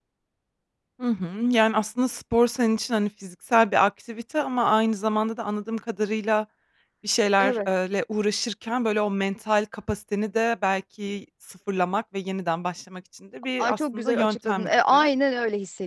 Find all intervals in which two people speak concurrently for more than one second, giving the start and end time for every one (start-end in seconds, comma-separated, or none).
13.6-15.1